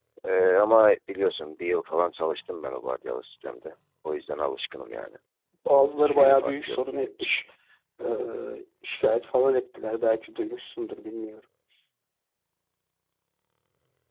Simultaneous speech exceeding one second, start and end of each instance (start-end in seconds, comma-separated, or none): 6.0-7.3